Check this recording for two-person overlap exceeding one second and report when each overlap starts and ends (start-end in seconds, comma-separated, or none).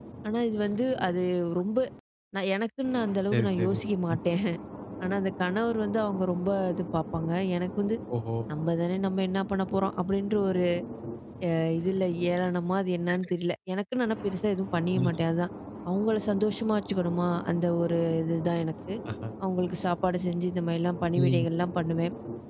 none